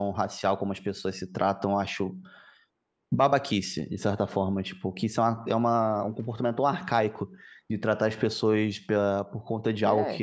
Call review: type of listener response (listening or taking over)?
listening